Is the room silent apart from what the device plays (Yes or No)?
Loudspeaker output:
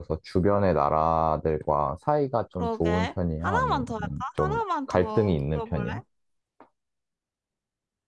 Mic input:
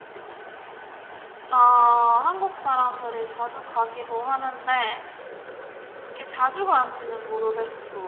No